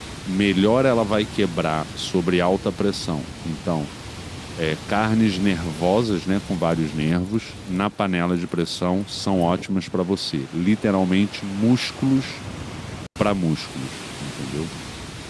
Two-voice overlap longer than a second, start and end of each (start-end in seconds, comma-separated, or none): none